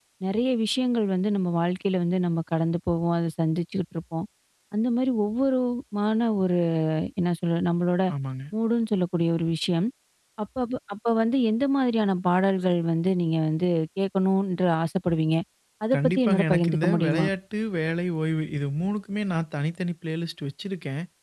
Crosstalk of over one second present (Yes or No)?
Yes